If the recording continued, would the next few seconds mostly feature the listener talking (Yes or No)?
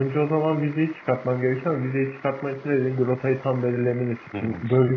No